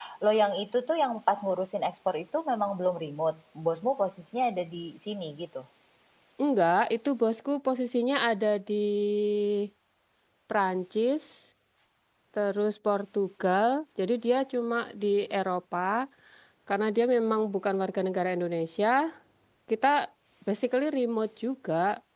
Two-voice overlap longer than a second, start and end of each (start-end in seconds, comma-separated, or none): none